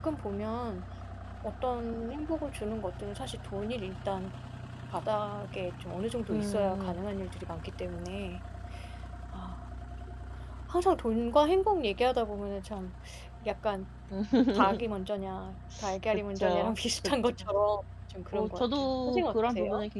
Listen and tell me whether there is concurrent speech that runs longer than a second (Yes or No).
Yes